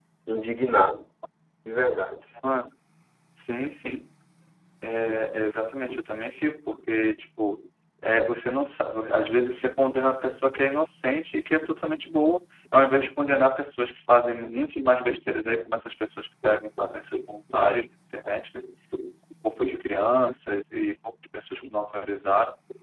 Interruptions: none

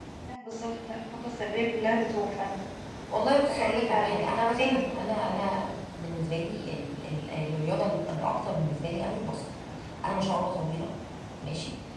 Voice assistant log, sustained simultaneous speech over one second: present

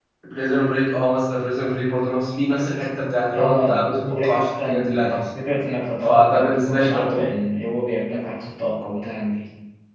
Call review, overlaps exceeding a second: present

